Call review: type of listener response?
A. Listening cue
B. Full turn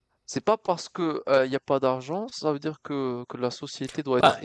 B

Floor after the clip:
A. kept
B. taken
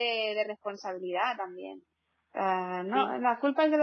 A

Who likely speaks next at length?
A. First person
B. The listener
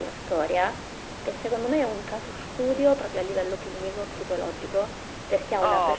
A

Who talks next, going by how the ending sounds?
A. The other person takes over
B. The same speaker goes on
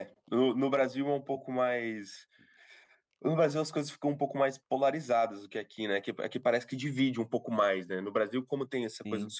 B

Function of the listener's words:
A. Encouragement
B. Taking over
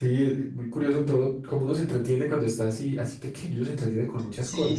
B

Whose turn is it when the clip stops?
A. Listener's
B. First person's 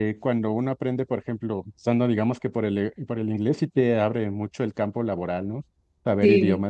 A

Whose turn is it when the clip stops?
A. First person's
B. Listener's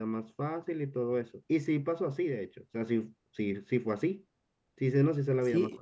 A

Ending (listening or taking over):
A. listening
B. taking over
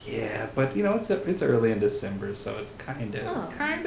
B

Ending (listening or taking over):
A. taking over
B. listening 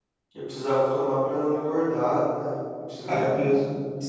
A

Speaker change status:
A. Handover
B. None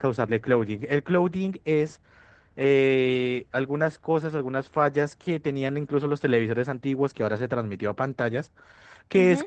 B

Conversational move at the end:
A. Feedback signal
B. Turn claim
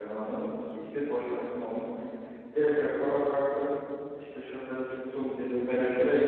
A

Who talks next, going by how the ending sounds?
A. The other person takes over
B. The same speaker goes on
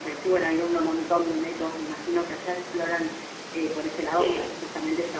B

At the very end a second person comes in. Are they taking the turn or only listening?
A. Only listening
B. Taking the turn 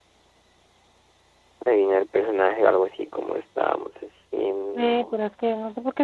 B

